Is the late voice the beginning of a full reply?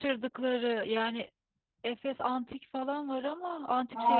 Yes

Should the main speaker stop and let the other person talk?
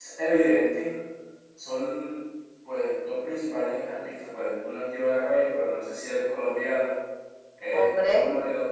No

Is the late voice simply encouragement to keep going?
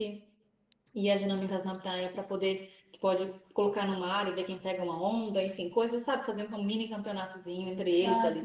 No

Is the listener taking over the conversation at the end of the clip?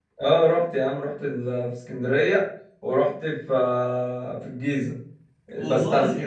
No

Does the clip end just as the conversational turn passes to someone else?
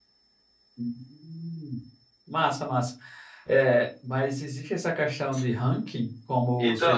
Yes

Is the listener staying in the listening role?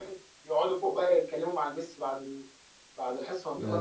Yes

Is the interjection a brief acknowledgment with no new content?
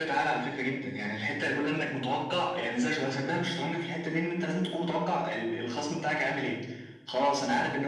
Yes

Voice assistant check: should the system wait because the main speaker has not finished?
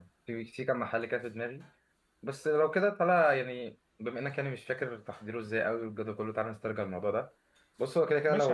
No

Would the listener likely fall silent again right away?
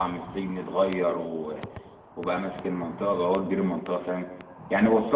Yes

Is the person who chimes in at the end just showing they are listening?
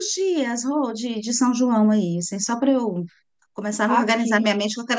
Yes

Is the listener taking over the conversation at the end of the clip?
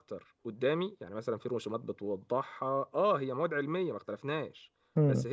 No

